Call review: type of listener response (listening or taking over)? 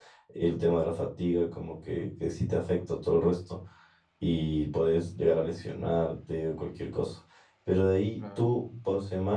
listening